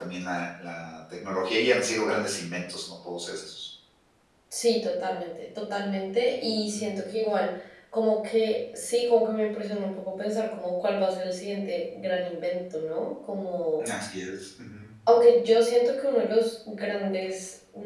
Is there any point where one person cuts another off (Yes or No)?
No